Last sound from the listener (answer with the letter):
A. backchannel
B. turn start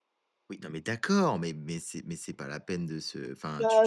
B